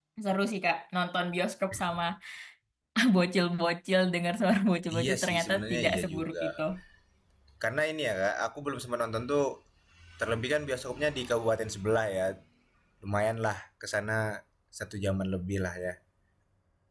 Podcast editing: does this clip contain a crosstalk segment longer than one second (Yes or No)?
Yes